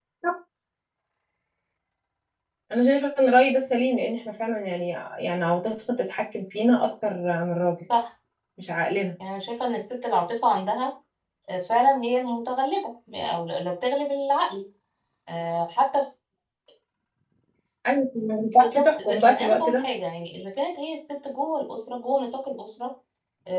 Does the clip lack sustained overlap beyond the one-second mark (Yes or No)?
No